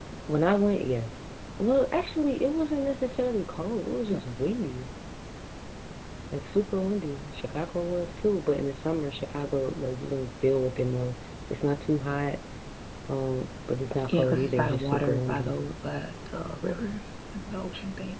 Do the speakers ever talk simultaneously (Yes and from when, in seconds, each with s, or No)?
Yes, from 14.1 s